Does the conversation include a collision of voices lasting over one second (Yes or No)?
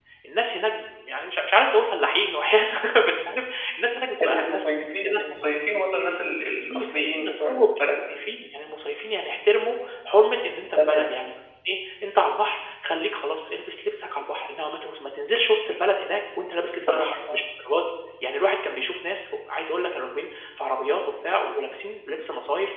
Yes